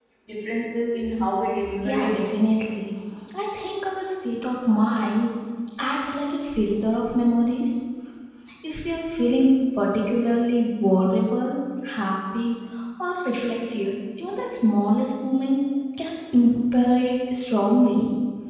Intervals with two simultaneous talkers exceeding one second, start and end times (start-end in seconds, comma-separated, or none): none